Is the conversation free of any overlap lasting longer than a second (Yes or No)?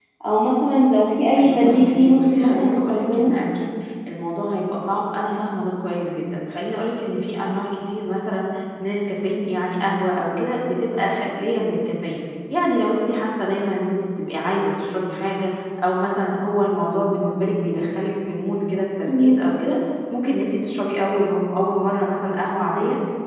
No